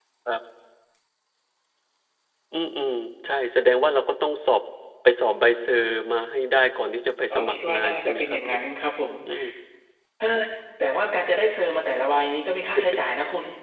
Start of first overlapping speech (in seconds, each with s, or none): 7.3 s